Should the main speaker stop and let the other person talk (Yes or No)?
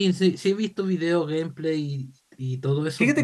Yes